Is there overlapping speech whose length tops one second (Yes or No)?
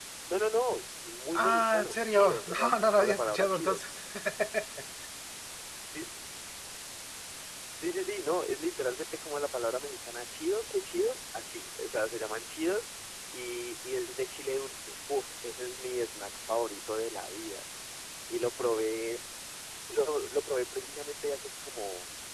Yes